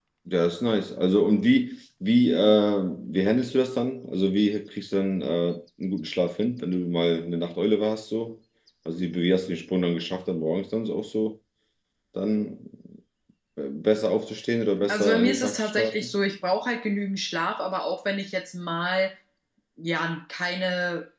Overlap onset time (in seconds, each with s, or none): 14.9 s